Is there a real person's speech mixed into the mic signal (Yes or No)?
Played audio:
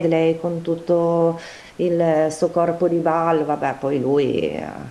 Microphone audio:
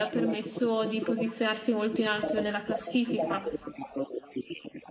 Yes